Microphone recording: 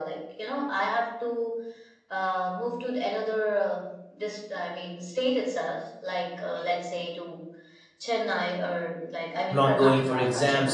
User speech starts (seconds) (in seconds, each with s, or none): 9.5 s